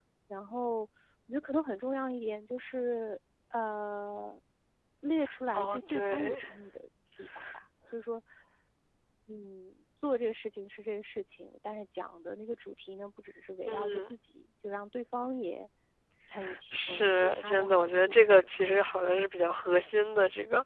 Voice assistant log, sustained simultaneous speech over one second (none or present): present